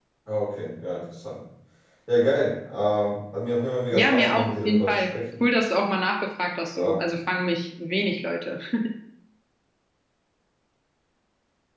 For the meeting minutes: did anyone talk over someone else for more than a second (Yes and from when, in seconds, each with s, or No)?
Yes, from 3.9 s